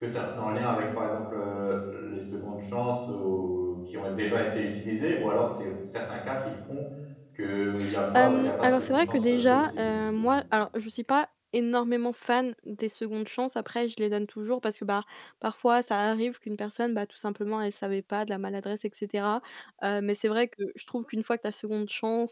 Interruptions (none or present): present